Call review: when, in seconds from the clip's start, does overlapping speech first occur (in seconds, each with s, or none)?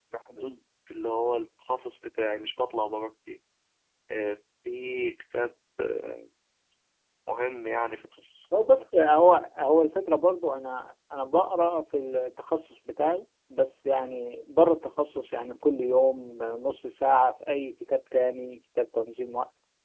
none